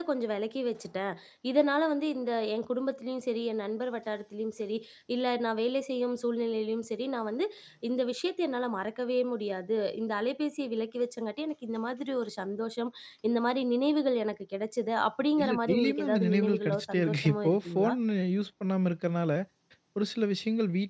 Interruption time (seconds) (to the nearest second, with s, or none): 15 s